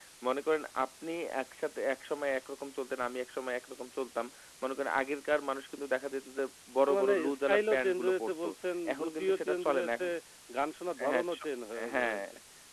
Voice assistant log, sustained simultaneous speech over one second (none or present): present